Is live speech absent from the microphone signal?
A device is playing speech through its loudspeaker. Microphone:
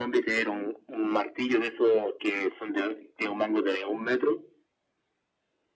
Yes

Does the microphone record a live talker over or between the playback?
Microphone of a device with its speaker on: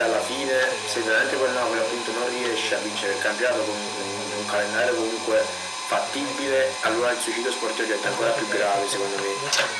Yes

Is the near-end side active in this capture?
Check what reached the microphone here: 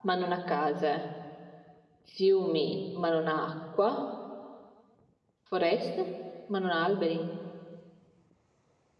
Yes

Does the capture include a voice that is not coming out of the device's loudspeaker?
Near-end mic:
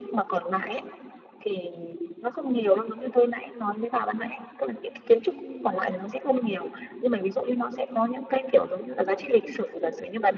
Yes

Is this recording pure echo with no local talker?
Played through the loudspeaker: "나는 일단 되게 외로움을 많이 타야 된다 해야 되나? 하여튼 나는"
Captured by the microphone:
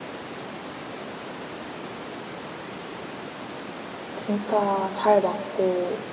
No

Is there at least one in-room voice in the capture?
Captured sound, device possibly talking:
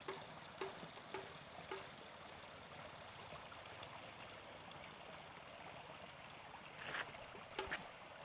No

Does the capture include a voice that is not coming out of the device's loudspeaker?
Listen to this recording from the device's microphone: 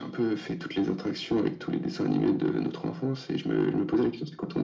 No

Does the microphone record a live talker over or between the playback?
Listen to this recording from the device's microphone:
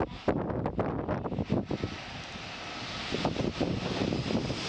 No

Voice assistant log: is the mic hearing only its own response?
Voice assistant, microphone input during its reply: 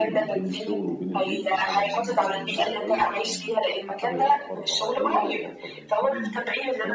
No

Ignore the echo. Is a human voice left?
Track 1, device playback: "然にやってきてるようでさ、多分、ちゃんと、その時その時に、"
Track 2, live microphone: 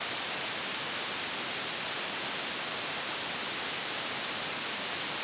No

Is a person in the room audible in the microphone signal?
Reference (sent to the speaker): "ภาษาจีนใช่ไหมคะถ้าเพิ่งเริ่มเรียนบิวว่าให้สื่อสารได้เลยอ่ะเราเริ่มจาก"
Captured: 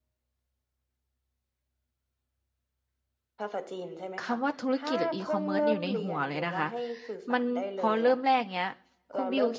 Yes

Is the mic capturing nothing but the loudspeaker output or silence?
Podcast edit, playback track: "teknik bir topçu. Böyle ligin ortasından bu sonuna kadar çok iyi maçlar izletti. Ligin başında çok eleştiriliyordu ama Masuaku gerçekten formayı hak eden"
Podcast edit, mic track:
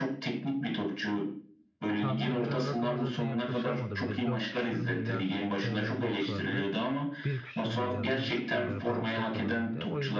No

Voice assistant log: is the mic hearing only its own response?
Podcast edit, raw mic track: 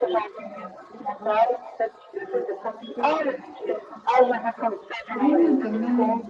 No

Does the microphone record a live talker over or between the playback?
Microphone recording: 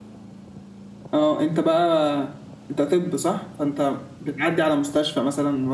Yes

